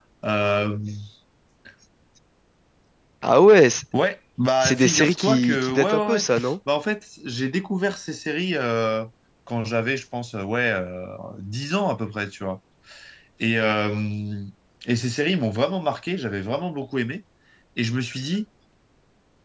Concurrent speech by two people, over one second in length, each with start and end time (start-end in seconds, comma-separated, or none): 4.6-6.2